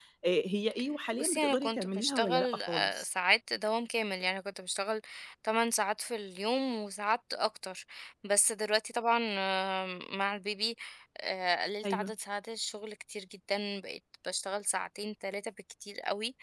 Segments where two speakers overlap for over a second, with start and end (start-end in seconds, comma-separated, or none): 1.2-3.1